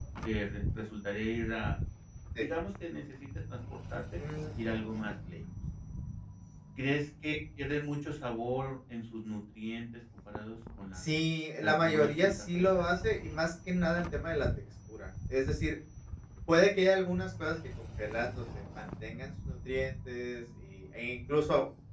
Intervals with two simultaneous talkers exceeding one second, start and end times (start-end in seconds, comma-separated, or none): 11.6-12.9